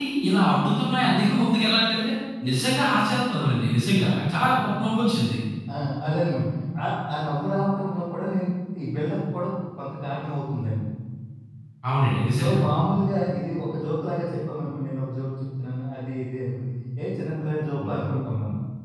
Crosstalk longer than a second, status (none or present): none